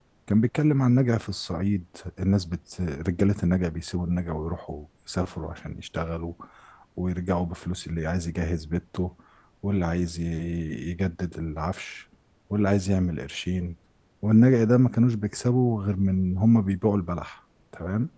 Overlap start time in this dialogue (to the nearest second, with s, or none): none